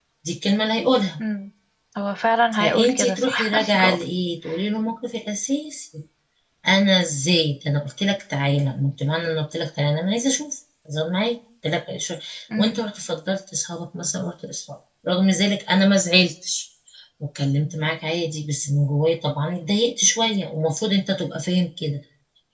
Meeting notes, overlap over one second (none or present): present